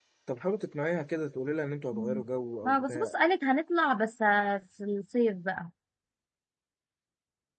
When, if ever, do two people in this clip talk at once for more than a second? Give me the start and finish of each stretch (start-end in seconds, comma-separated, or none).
none